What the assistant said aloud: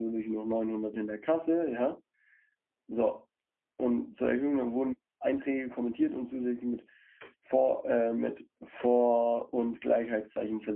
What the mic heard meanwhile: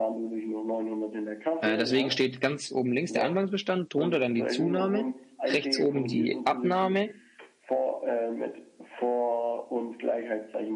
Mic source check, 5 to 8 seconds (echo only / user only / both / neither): both